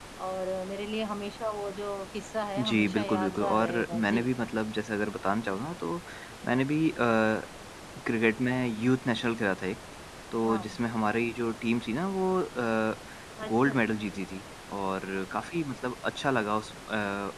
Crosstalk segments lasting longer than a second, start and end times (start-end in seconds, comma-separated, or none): 2.6-4.2